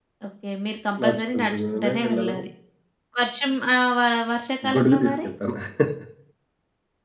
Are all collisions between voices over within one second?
No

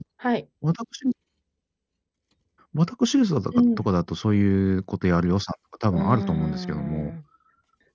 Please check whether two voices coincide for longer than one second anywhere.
Yes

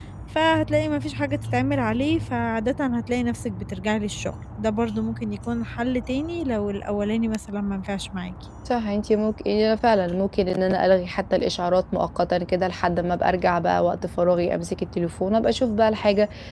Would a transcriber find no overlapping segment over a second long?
Yes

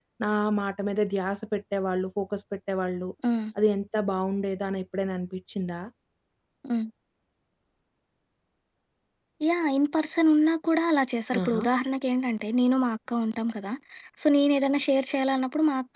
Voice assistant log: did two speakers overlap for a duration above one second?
No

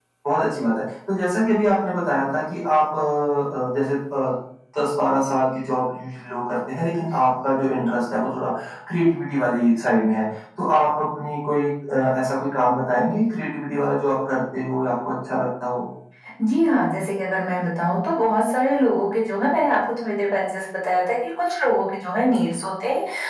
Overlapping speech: No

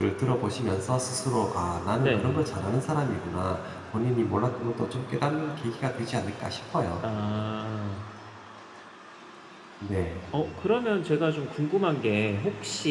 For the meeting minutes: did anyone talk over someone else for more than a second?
No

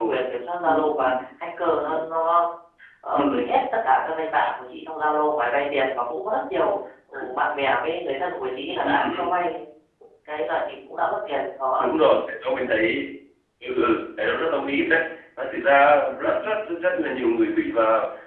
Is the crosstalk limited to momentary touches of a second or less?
Yes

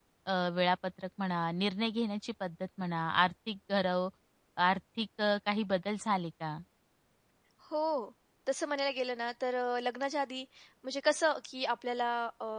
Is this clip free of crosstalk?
Yes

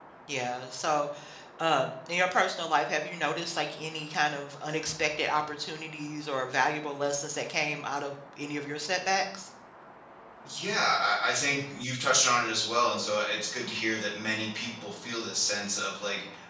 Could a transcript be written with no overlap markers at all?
Yes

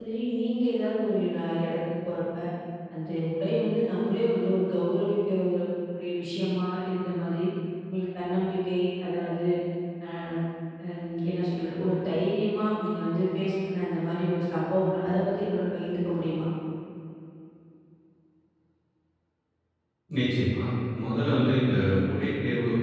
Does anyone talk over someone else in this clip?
No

